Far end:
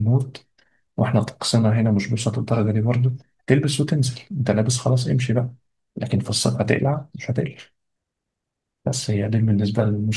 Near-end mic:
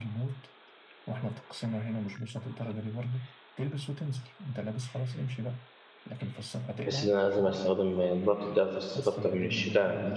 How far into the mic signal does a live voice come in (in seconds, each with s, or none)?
6.9 s